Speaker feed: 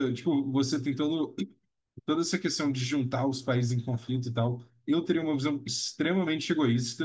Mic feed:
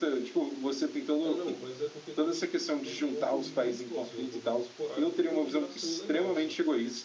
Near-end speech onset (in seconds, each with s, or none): 1.2 s